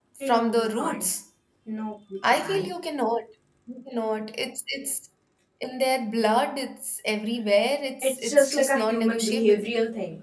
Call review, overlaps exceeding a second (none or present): present